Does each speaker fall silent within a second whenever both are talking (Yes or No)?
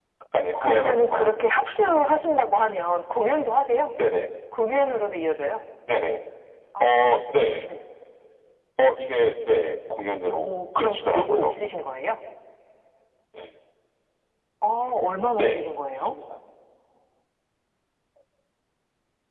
No